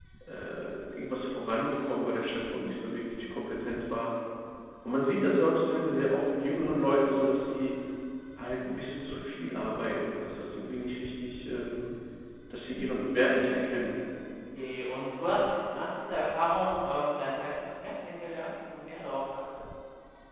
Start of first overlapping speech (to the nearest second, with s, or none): none